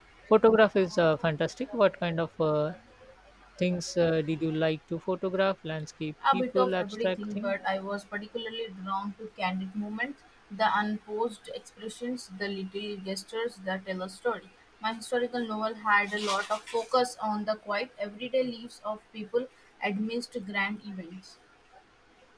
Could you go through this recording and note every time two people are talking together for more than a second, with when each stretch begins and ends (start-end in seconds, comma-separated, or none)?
6.3-7.5